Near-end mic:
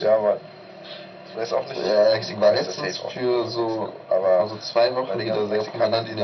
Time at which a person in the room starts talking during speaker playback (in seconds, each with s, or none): none